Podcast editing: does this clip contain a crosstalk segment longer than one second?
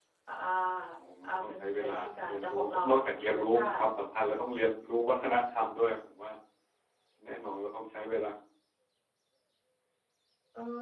Yes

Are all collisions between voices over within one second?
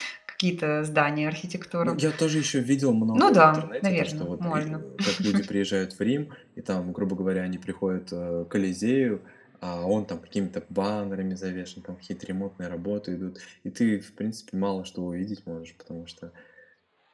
No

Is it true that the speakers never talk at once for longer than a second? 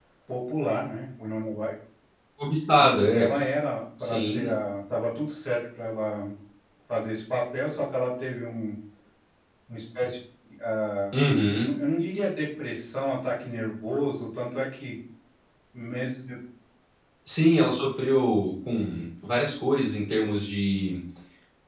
Yes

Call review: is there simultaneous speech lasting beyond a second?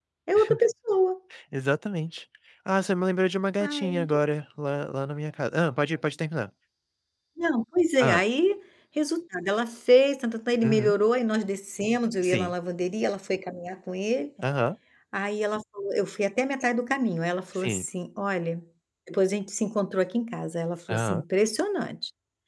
No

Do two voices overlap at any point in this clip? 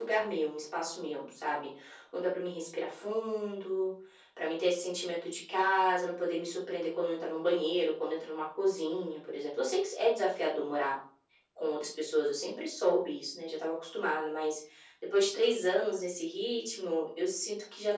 No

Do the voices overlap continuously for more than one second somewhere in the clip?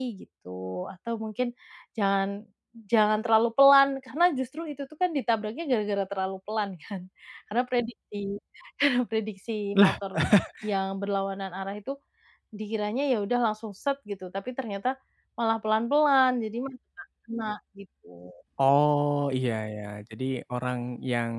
No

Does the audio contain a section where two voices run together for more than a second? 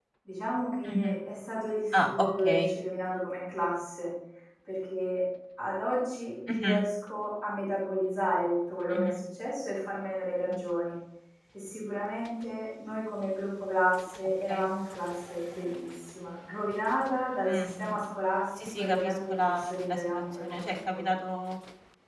Yes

